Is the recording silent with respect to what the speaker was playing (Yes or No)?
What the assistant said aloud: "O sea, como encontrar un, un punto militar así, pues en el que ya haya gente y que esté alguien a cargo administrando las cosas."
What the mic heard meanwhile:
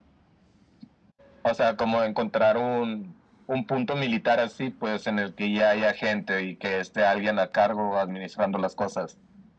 No